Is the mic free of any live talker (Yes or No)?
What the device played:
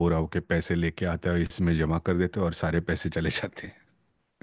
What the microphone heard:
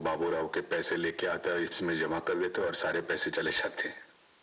Yes